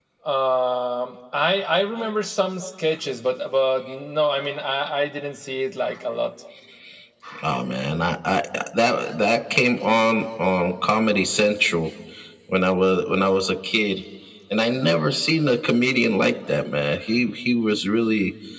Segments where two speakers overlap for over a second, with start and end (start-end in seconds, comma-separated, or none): none